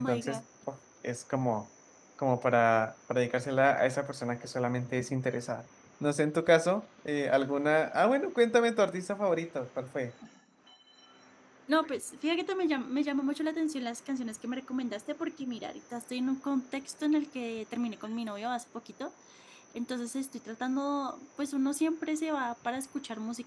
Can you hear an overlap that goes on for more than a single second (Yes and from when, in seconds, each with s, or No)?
No